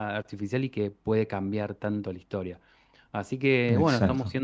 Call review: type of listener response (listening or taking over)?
listening